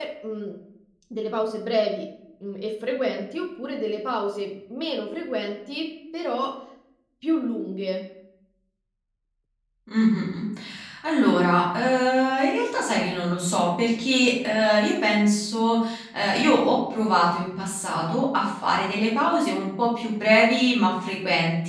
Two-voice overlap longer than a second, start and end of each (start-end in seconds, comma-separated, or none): none